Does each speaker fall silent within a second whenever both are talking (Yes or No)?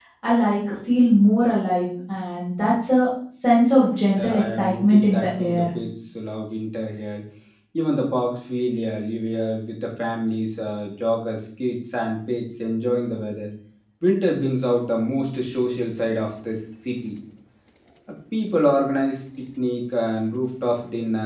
No